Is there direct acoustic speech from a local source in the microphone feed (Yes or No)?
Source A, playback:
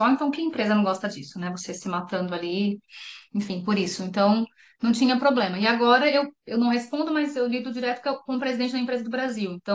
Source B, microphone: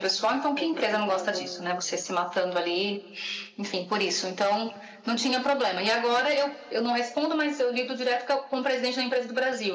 Yes